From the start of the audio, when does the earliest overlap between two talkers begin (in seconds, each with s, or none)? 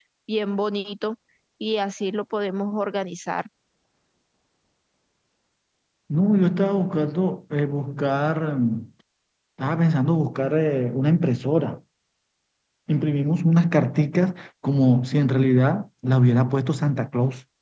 none